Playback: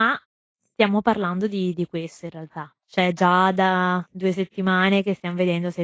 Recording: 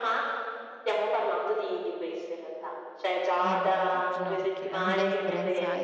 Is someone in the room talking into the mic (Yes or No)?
Yes